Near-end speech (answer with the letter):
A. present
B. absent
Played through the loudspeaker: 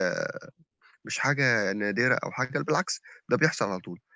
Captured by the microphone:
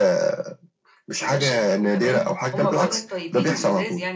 A